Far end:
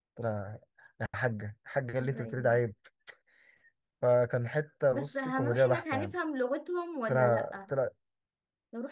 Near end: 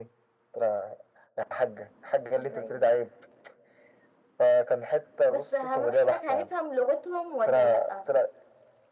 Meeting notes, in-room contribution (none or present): none